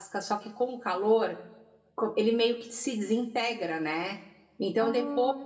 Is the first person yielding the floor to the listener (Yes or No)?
No